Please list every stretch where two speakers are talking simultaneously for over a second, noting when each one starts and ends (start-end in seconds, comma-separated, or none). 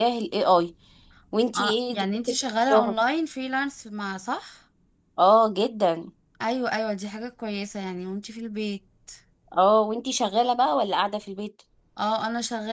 1.6-3.0